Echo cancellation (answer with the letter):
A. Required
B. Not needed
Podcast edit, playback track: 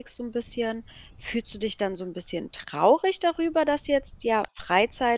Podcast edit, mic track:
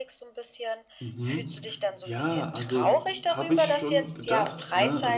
A